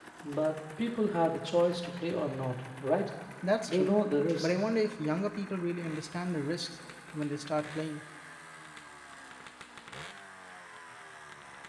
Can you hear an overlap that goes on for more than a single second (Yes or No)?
No